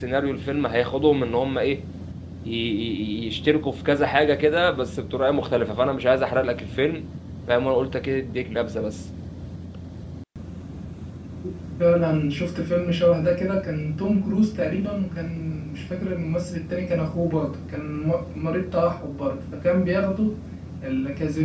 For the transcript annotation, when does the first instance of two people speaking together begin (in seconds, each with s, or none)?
none